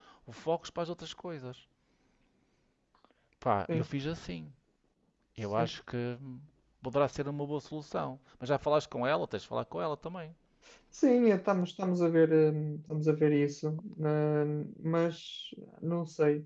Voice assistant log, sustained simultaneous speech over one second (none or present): none